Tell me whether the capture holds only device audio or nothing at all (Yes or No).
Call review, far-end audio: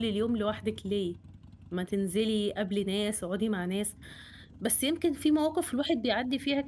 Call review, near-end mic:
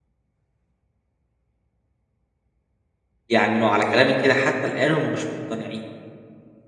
No